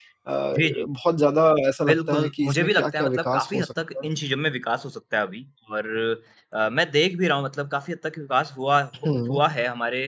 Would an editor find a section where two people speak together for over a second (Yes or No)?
Yes